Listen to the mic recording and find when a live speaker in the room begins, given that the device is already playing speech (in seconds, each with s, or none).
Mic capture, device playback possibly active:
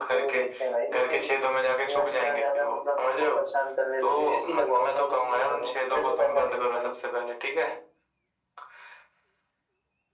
none